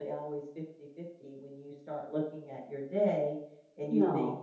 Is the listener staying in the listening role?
Yes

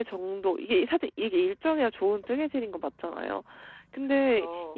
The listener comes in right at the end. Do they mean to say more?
No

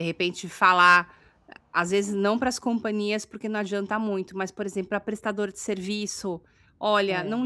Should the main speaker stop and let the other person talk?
No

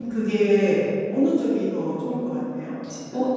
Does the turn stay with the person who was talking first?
No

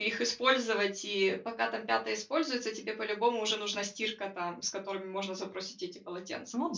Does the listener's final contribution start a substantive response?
Yes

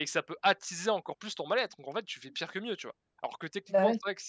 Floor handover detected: No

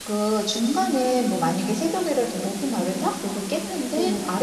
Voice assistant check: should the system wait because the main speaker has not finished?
Yes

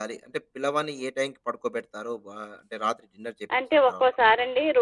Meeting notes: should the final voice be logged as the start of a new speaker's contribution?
Yes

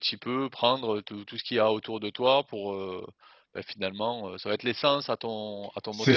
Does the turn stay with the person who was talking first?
No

